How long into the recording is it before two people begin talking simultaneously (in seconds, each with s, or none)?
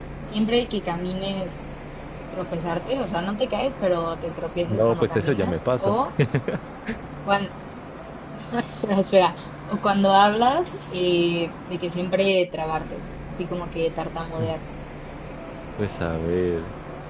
4.7 s